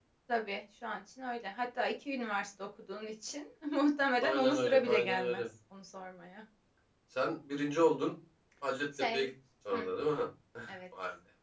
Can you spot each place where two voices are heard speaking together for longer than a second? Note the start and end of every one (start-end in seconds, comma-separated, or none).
4.2-5.4